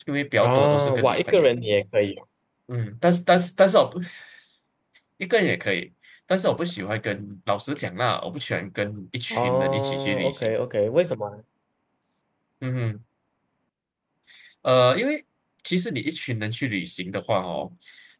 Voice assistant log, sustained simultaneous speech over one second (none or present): present